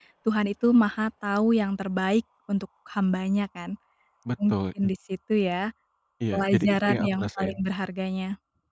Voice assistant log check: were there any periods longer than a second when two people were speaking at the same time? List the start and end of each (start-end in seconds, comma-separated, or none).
6.3-7.6